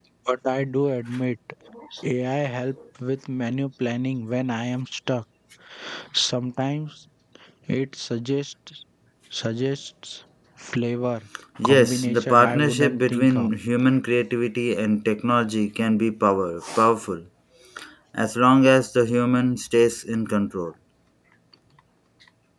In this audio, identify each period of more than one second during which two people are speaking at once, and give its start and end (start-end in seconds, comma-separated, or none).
11.6-13.5